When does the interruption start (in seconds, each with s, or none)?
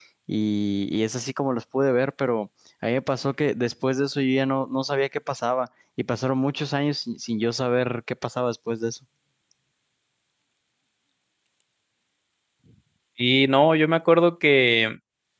none